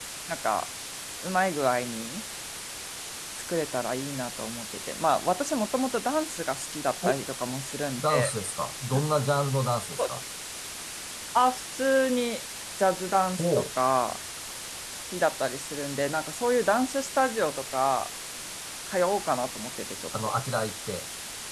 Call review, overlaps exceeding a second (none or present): none